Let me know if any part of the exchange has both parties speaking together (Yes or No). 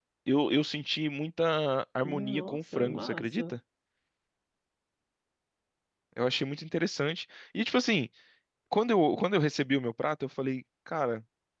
Yes